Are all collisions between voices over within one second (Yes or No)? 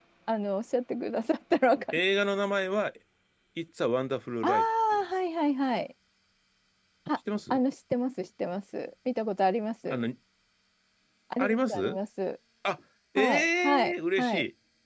No